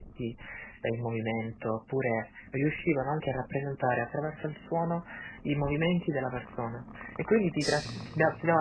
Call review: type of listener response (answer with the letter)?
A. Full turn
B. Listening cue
B